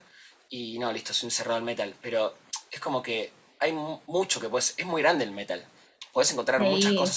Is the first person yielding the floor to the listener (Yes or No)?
No